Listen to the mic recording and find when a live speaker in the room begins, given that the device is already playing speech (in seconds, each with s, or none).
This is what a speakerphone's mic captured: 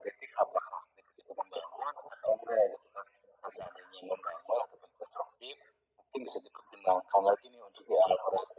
none